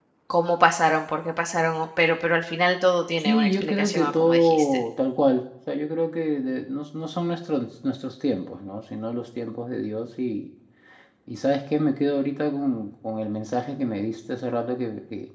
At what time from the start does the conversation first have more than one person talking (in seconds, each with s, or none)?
3.2 s